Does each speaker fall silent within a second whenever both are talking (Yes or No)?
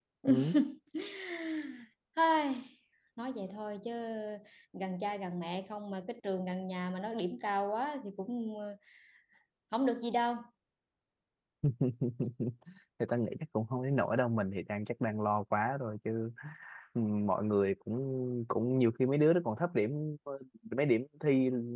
Yes